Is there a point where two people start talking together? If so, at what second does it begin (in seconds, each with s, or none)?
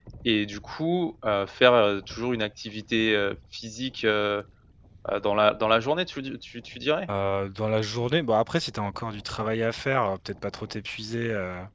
none